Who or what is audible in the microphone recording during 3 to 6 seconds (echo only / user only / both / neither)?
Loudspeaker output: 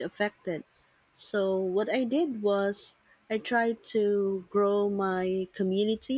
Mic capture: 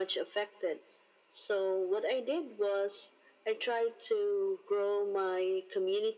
echo only